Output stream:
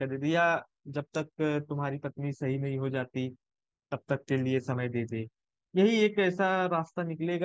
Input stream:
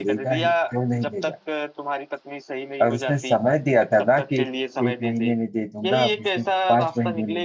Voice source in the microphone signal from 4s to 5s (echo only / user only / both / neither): both